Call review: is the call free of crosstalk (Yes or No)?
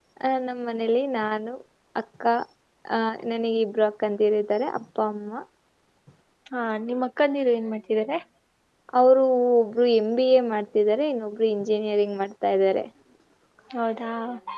Yes